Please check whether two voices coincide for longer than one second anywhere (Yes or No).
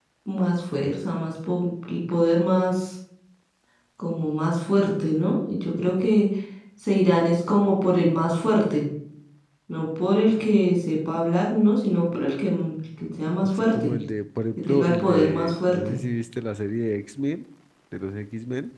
Yes